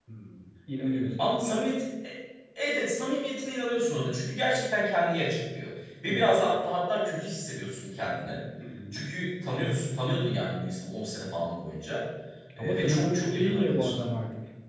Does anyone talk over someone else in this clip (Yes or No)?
Yes